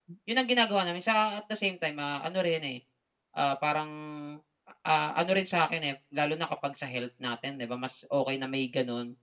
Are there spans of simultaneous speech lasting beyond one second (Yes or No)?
No